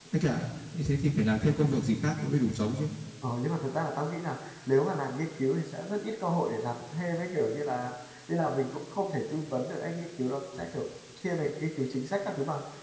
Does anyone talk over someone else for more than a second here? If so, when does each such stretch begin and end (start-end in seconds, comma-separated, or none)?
none